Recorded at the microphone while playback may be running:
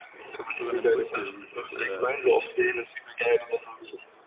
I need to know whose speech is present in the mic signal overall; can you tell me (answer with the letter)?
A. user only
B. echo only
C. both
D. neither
C